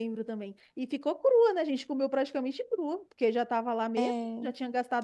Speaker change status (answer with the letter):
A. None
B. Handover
A